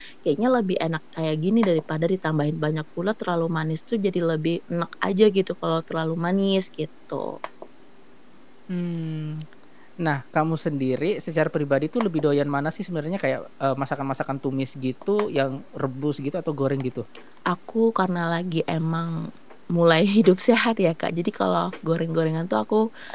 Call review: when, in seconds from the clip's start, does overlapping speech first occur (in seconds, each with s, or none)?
none